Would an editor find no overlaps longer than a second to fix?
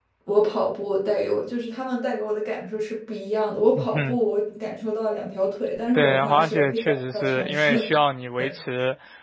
No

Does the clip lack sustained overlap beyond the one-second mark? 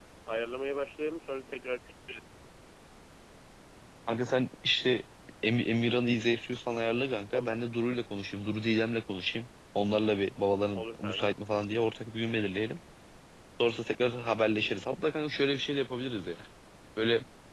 Yes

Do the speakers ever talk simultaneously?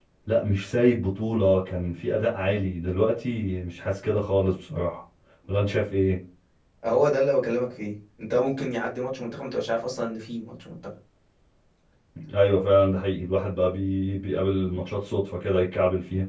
No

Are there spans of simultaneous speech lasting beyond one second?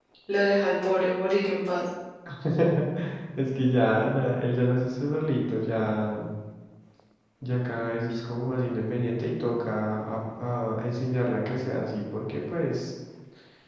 No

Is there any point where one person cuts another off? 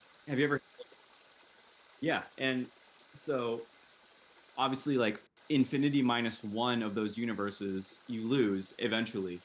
No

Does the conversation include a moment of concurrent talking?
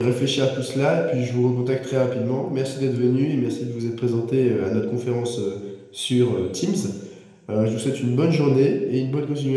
No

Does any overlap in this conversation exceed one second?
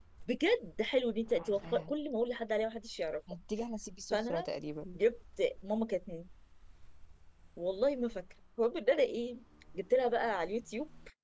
No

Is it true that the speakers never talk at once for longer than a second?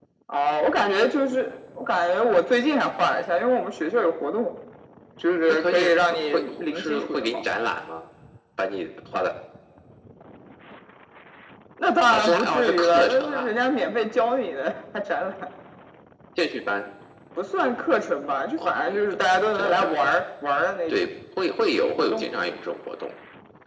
No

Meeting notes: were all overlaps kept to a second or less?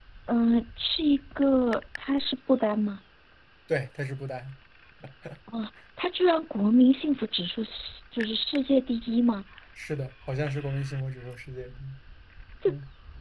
Yes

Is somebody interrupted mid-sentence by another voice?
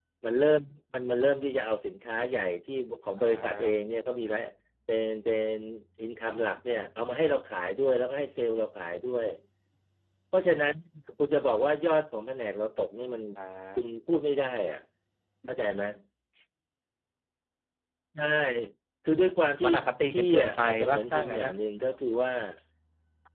Yes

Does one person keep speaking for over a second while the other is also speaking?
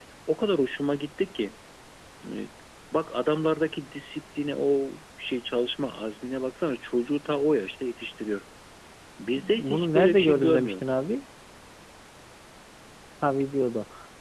Yes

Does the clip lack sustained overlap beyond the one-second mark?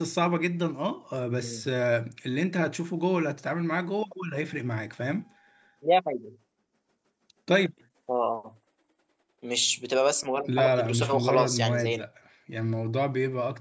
No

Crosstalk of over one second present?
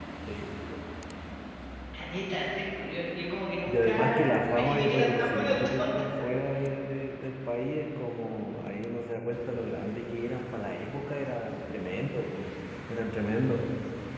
Yes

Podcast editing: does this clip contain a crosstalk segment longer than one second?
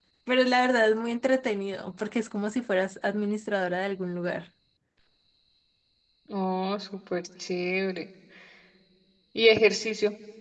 No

